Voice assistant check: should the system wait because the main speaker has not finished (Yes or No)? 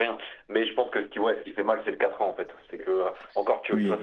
Yes